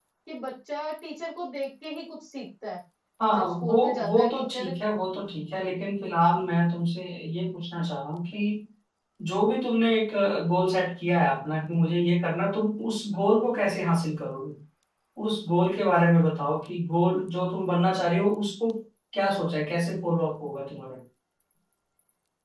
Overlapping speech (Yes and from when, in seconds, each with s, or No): Yes, from 3.3 s